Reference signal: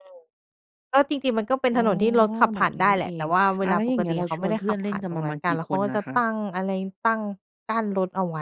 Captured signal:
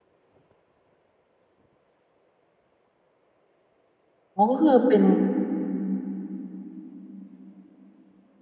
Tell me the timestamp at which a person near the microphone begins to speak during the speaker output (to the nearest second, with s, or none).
4 s